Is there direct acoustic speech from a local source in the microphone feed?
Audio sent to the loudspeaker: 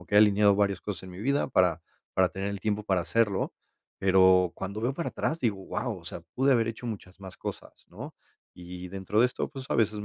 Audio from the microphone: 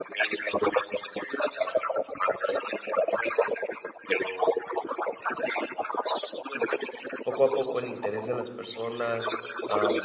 Yes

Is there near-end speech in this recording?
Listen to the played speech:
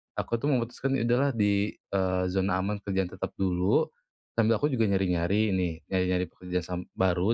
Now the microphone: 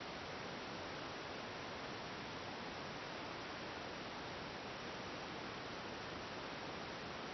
No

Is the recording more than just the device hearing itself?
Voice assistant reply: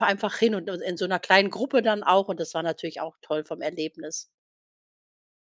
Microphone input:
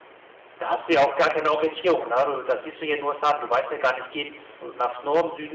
Yes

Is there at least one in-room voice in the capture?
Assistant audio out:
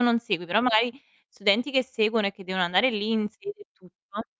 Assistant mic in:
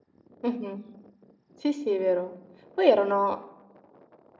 Yes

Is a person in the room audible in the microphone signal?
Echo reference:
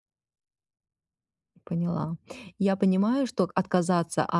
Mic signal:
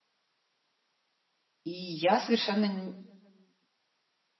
Yes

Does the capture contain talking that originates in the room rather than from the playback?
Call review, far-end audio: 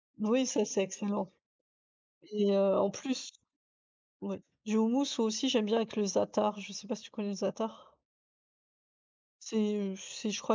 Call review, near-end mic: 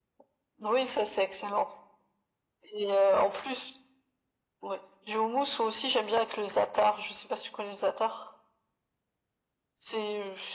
No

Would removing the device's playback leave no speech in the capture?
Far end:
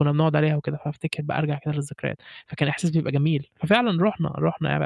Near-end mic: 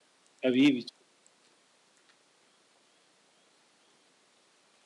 No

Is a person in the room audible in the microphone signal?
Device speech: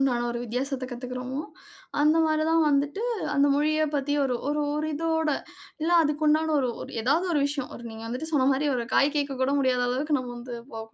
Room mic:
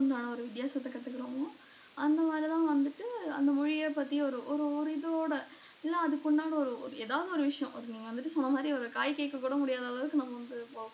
No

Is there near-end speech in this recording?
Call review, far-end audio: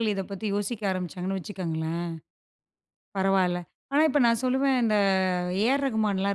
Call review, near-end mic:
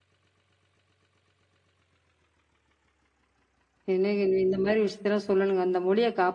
Yes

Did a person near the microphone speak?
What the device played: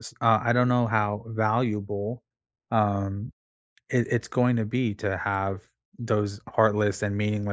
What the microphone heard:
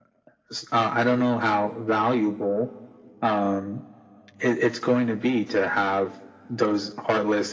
No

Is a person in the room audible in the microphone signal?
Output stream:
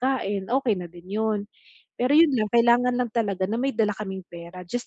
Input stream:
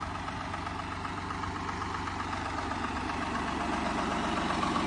No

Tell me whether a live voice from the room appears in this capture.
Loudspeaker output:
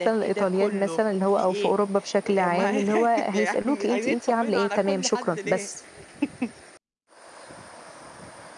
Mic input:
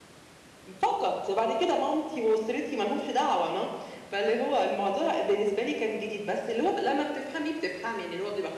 Yes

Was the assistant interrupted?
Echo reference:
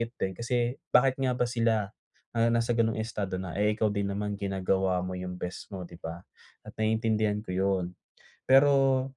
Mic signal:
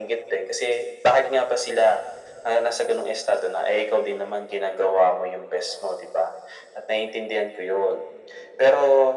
No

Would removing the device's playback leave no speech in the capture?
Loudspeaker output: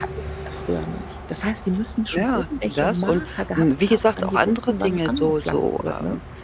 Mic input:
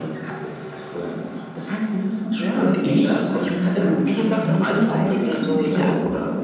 No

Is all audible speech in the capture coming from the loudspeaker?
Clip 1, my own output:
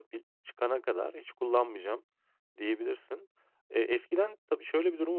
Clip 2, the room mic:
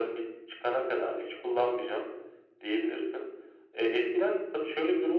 Yes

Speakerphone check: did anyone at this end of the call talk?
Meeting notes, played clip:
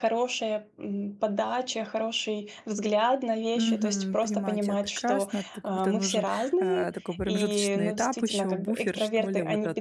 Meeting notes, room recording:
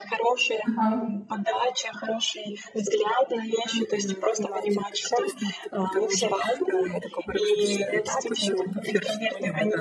Yes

